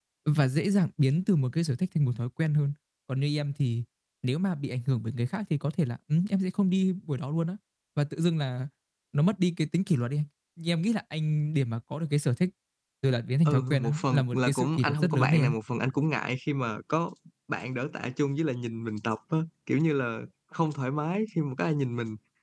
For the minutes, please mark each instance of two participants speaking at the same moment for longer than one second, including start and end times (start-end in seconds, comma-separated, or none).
13.4-15.5